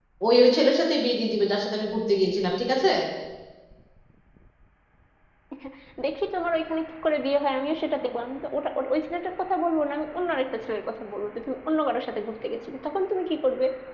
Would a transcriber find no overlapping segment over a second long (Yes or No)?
Yes